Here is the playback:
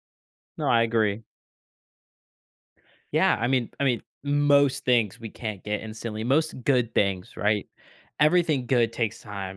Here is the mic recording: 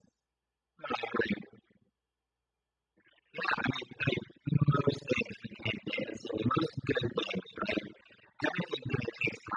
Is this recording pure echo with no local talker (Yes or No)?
Yes